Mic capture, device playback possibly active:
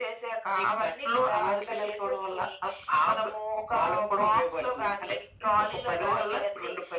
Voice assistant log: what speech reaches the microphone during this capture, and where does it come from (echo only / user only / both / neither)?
echo only